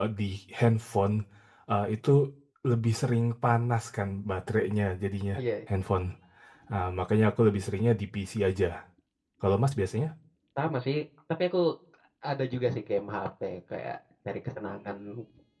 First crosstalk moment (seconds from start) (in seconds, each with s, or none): none